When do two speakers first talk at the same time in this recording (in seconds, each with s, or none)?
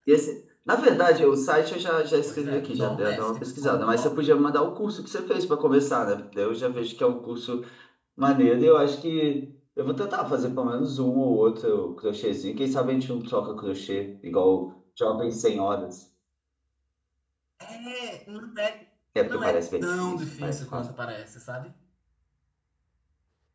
2.2 s